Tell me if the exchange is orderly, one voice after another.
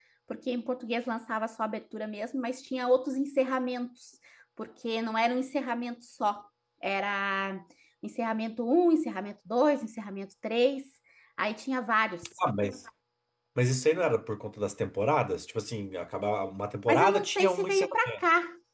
No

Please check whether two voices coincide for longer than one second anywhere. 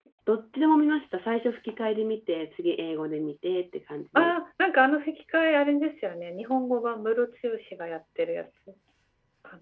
No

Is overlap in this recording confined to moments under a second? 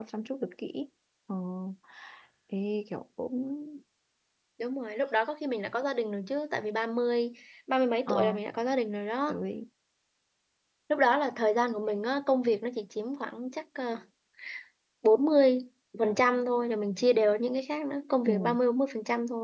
Yes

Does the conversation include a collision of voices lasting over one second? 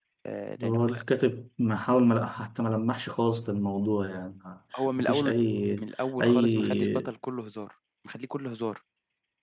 Yes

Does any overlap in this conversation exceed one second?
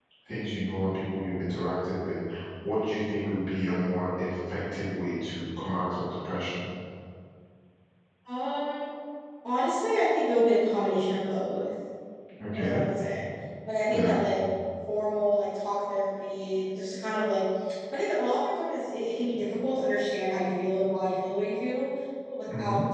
No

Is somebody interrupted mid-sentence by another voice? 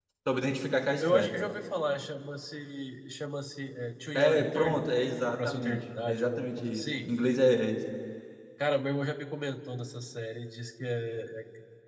Yes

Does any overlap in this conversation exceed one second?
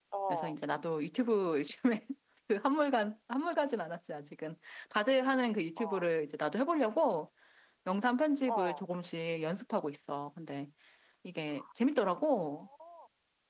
No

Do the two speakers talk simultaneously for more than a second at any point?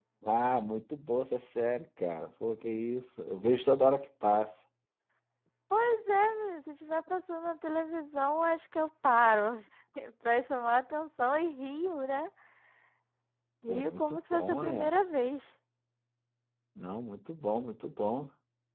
Yes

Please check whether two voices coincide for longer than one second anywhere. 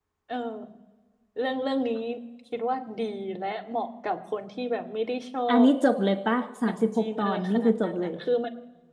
Yes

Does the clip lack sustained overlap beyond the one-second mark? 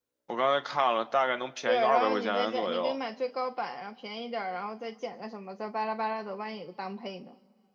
No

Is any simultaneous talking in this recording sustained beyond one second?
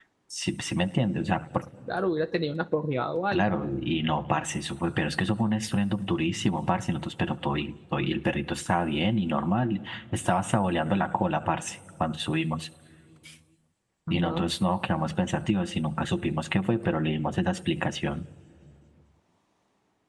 No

